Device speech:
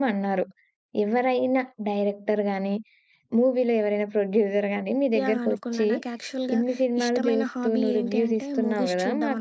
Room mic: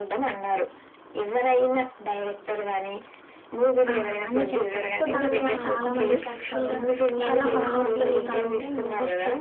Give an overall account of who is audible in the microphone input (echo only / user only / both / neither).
both